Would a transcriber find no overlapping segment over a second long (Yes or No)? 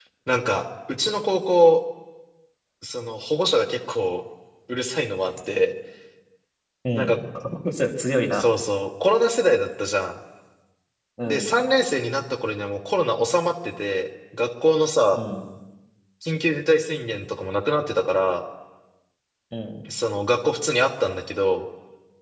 Yes